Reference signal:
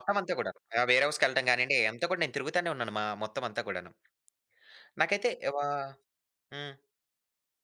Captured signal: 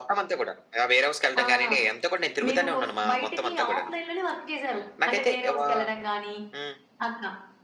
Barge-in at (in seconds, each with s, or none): 1.4 s